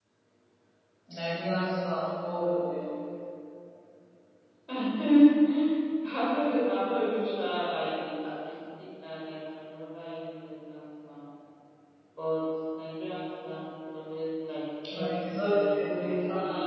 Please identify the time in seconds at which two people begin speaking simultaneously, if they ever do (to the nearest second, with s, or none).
15 s